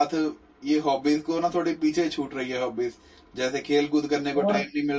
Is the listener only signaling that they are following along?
Yes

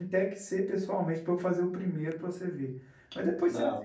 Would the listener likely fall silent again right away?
Yes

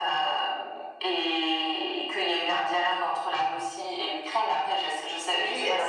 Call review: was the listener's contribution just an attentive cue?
No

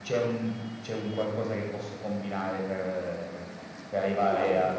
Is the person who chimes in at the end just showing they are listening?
Yes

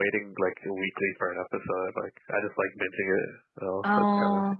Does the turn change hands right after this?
Yes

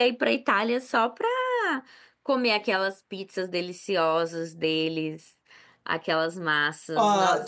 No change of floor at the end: No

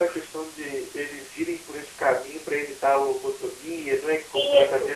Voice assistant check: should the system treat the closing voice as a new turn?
Yes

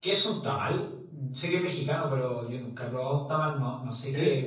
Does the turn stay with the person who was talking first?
No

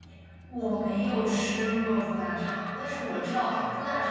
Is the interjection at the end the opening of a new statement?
No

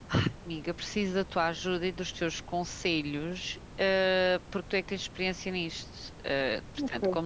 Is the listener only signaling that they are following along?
Yes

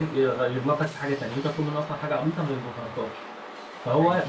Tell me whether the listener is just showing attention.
Yes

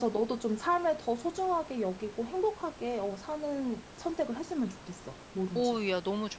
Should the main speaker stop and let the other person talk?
Yes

